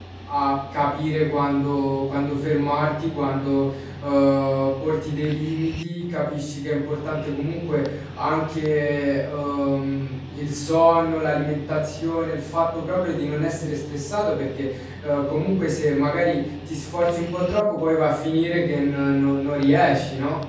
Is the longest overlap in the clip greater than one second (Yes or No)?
No